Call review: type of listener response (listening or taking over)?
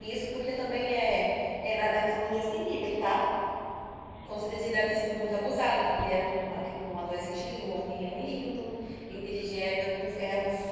listening